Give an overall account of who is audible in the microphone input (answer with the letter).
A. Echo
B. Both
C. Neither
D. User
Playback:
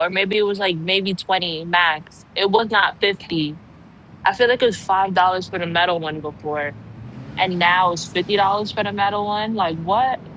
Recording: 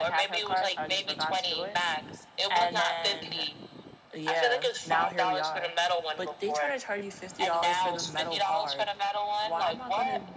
B